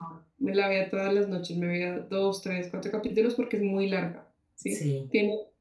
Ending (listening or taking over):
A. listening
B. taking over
A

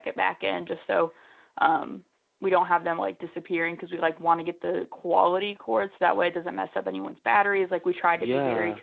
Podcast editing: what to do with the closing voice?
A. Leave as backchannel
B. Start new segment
B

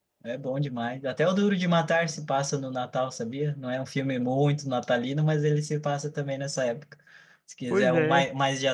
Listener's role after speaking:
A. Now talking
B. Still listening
B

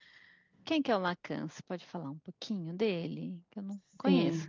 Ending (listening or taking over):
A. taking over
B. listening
A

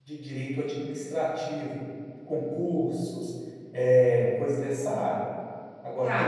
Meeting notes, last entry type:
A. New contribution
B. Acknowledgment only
A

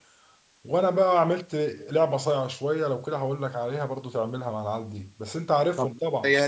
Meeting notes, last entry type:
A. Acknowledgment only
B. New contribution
B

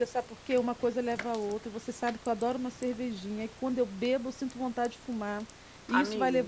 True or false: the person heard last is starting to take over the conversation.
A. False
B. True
A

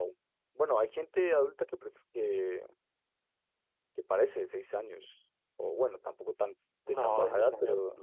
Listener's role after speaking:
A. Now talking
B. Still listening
A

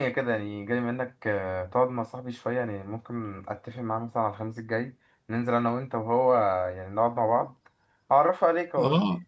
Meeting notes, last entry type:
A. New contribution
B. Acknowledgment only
A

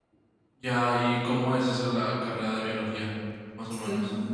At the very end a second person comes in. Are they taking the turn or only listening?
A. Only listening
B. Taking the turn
B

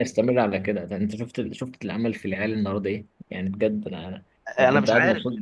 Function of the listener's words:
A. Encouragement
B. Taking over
B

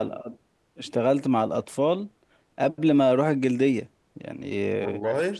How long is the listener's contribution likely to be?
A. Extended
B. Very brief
B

